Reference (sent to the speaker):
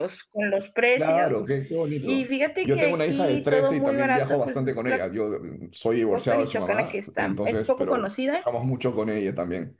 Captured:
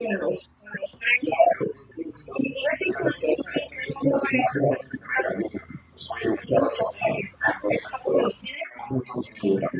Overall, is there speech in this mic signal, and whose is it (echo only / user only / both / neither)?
echo only